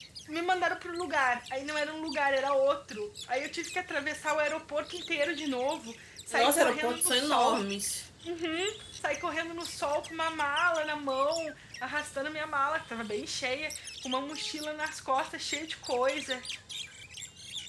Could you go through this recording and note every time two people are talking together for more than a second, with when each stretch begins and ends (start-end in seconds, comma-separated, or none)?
6.3-7.6